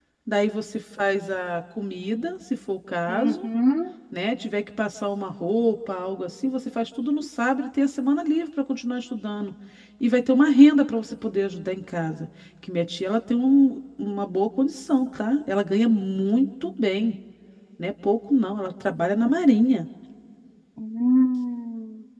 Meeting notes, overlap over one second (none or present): none